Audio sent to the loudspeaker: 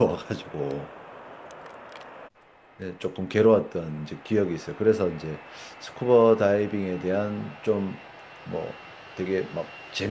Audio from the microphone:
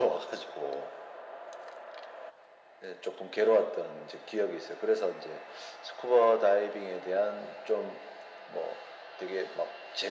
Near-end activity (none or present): none